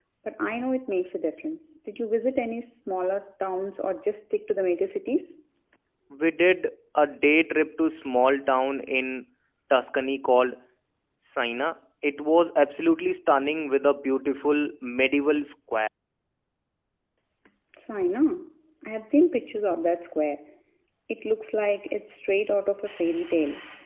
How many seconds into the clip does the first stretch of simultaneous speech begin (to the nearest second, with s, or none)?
none